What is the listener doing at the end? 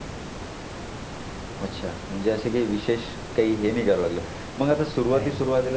listening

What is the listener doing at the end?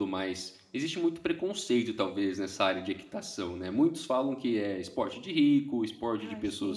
listening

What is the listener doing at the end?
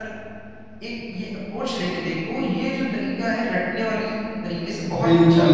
taking over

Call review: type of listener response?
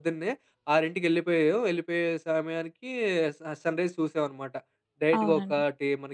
listening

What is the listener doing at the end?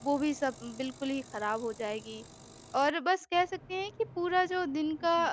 listening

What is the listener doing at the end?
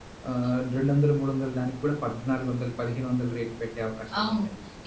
taking over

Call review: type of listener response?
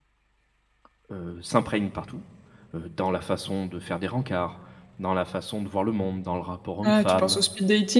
taking over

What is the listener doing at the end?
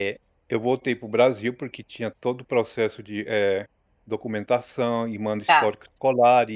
listening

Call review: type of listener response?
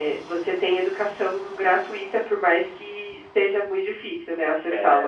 taking over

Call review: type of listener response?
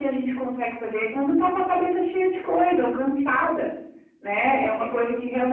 listening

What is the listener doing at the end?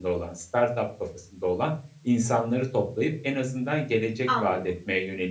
listening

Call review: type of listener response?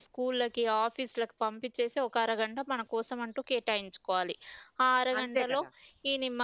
listening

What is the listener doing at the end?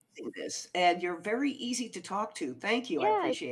taking over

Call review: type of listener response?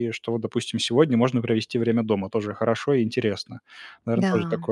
listening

